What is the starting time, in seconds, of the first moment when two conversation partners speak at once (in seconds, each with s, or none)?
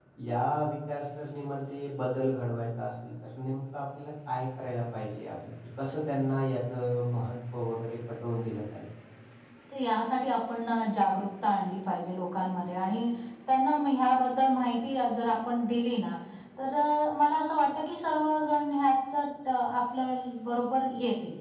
none